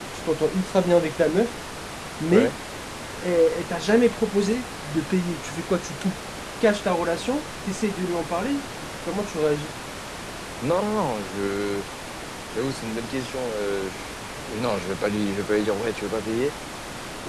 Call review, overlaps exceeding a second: none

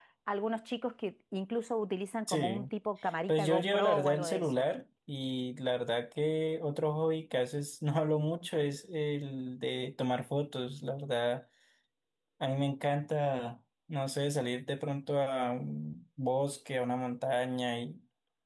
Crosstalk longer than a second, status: present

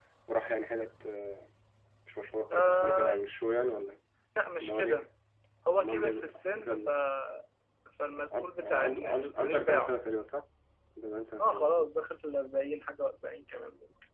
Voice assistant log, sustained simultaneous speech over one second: present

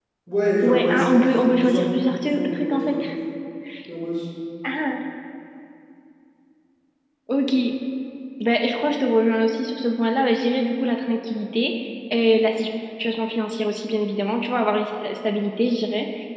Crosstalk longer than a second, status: present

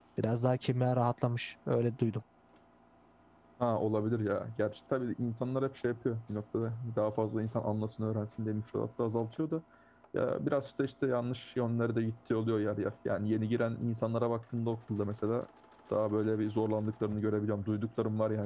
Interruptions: none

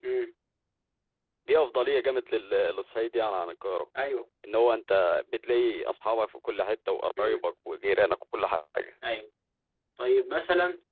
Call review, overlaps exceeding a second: none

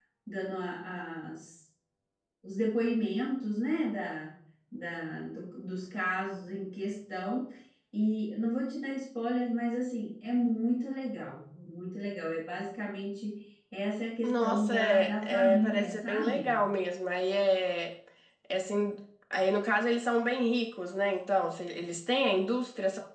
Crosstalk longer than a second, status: present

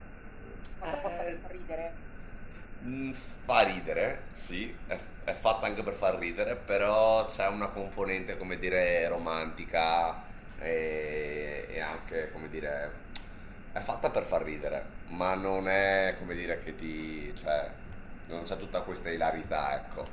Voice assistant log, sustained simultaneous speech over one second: none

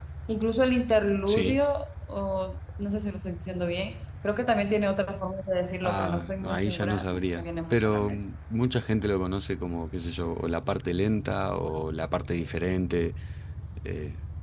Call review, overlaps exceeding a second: present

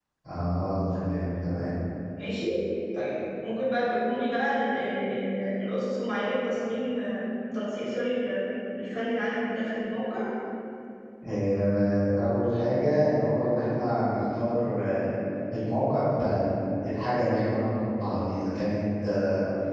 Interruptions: none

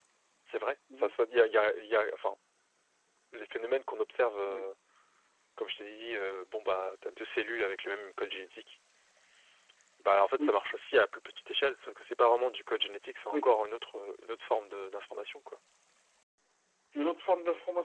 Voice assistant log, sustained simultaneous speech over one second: none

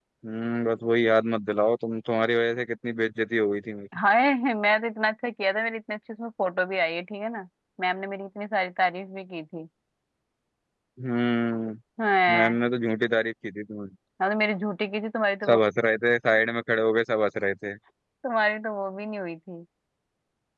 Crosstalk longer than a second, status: none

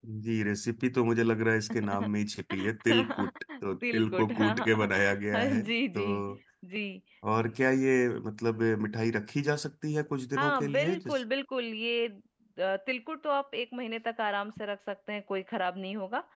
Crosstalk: present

